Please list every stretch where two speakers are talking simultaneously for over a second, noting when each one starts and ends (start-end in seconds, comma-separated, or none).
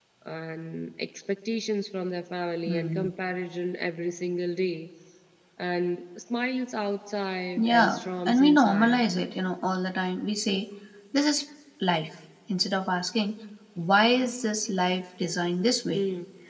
7.6-9.0